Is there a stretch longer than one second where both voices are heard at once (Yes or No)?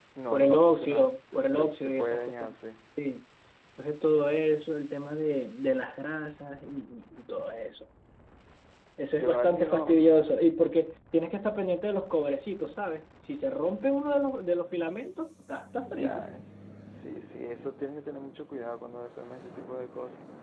Yes